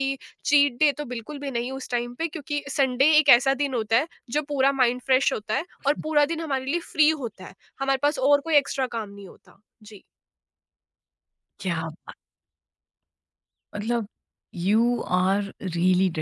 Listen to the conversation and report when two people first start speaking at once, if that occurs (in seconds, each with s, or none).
none